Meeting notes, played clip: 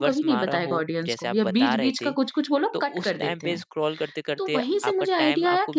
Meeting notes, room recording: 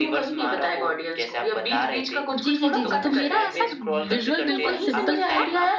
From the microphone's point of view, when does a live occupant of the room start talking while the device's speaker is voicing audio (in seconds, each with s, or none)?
2.3 s